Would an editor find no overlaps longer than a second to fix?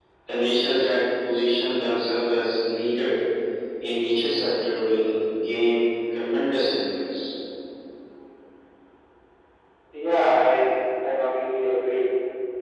Yes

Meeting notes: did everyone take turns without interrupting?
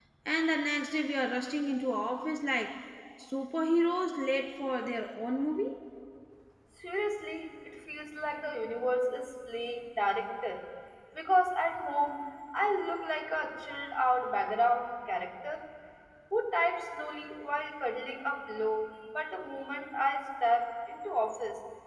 Yes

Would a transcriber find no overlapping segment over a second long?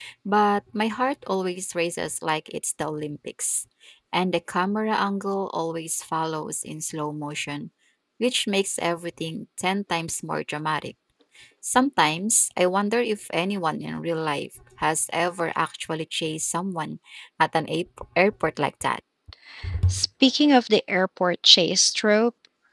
Yes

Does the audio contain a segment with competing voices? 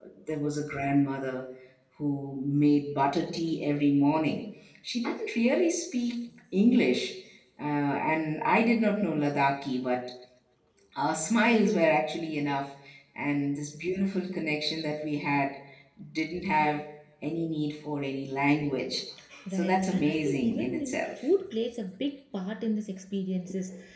Yes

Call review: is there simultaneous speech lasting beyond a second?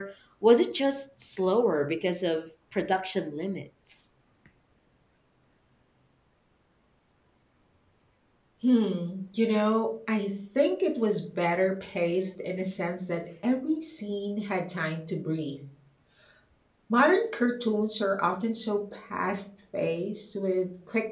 No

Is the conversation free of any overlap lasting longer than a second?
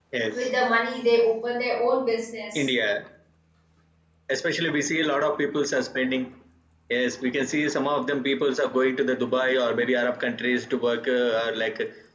Yes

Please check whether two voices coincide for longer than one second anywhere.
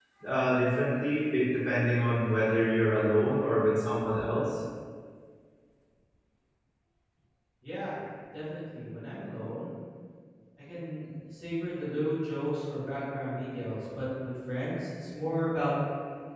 No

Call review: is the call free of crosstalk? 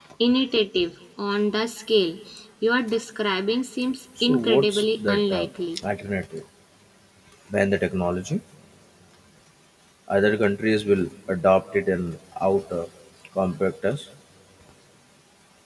No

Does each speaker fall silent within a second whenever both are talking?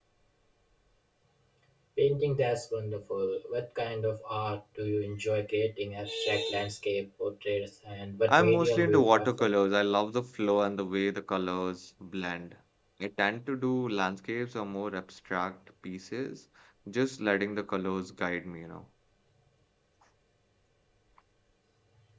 No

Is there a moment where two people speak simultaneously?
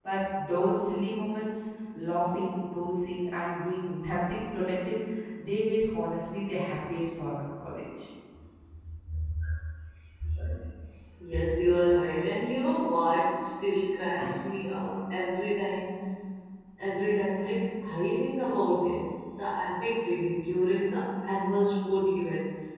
No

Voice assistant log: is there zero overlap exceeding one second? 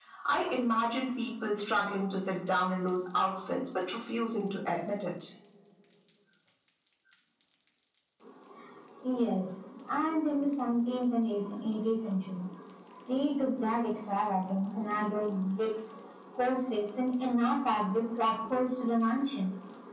Yes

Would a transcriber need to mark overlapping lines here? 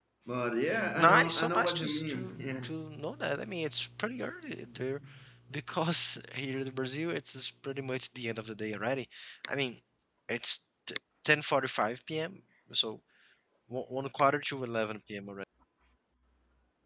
Yes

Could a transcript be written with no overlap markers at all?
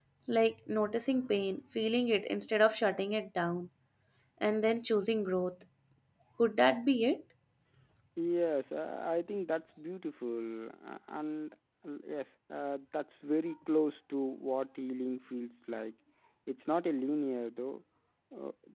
Yes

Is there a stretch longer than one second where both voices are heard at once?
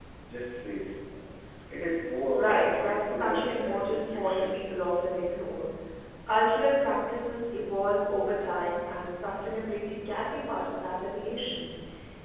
Yes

